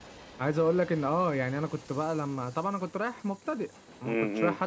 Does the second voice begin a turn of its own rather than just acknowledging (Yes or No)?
No